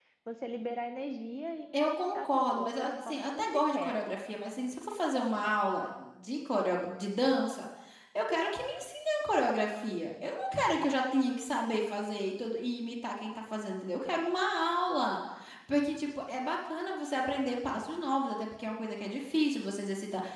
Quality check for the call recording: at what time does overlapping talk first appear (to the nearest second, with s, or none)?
2 s